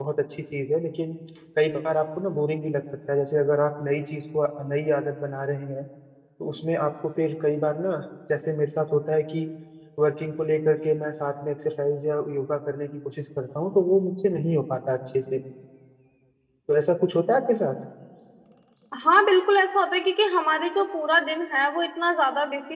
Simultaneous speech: No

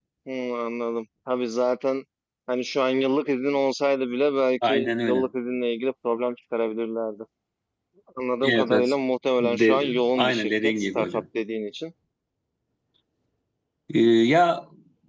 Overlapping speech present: Yes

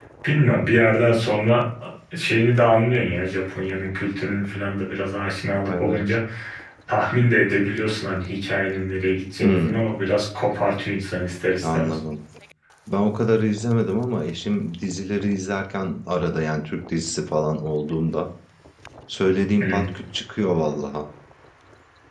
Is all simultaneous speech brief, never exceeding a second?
Yes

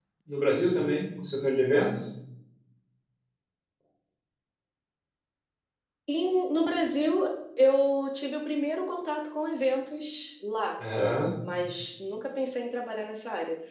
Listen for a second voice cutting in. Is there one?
No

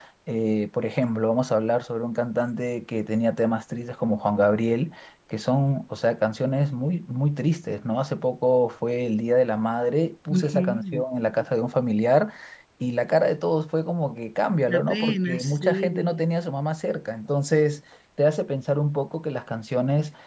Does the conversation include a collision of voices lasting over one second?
Yes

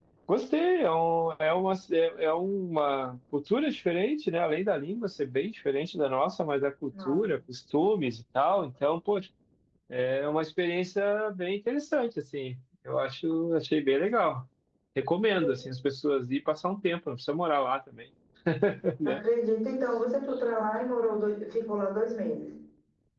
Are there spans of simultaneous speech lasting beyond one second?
No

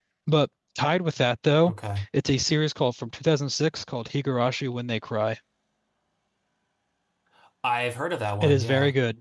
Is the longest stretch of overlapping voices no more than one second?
Yes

